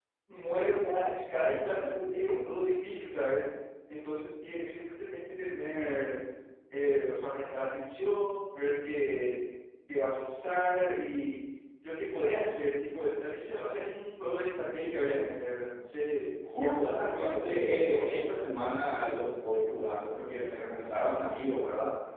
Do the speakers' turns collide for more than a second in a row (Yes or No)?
Yes